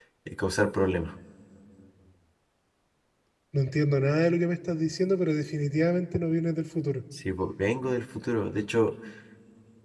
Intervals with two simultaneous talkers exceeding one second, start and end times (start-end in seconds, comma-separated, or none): none